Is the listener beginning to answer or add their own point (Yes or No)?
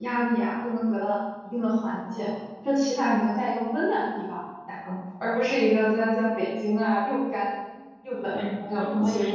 Yes